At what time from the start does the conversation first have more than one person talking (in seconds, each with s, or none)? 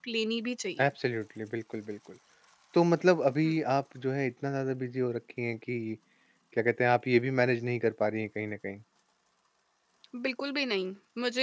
none